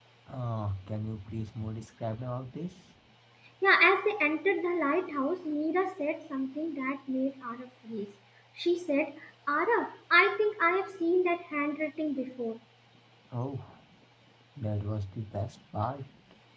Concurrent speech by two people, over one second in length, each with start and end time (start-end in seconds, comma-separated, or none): none